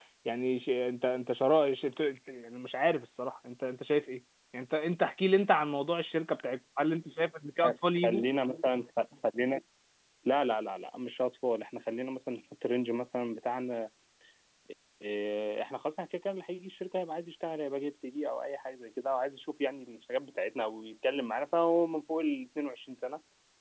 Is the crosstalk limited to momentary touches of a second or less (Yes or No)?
Yes